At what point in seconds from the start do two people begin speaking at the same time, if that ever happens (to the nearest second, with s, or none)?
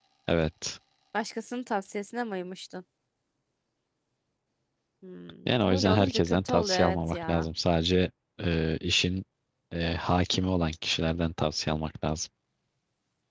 6 s